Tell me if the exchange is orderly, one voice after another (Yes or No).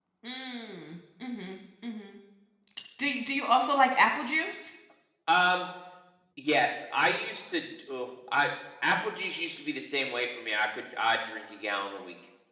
Yes